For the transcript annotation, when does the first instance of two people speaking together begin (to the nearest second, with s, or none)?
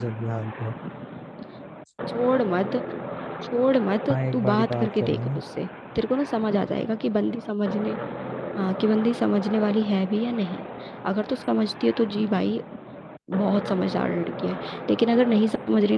4 s